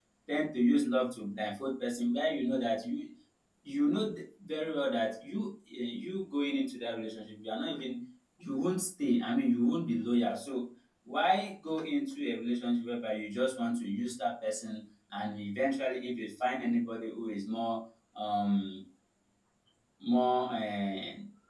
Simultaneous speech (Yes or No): No